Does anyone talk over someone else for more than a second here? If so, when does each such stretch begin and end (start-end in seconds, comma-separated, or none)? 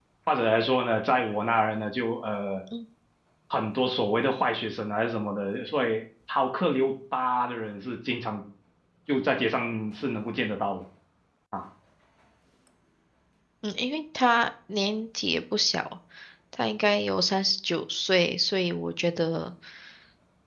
none